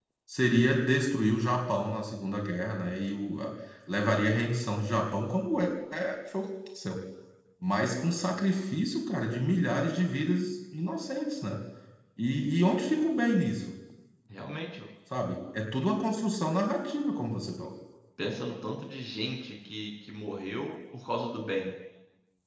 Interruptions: none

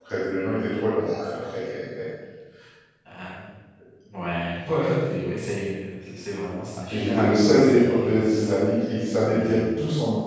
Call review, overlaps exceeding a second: present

